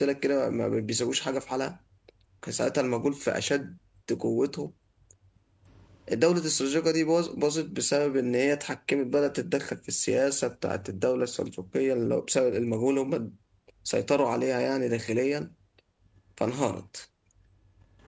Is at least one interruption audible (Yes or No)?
No